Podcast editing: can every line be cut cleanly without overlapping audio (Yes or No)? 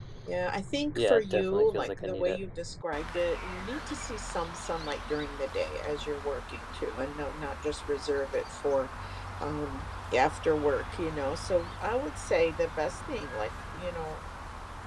No